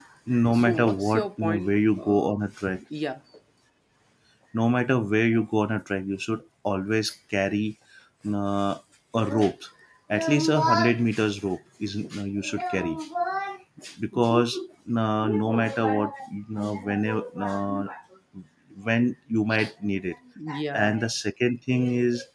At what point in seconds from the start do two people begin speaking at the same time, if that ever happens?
0.5 s

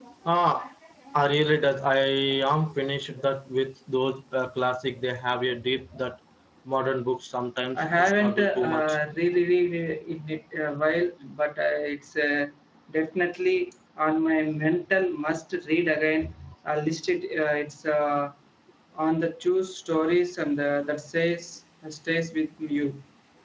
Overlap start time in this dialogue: 7.8 s

